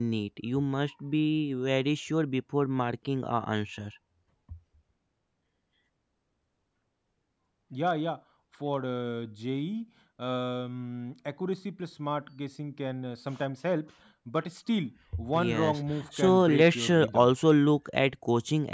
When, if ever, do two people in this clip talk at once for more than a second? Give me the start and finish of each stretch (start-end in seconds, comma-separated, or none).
15.3-17.3